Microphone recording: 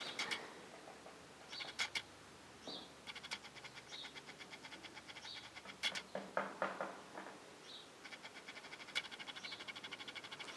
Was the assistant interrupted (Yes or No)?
No